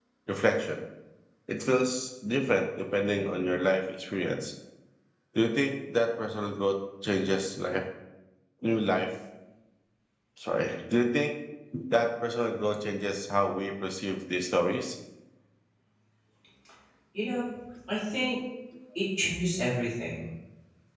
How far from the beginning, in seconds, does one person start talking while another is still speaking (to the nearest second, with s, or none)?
none